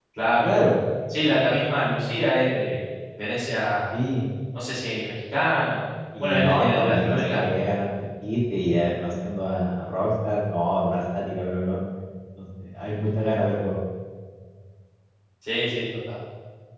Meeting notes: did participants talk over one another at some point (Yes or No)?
Yes